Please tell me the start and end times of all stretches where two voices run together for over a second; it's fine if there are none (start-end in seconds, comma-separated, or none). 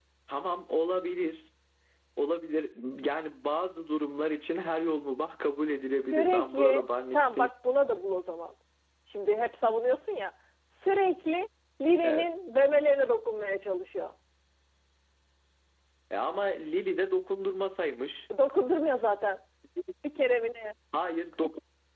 6.1-7.5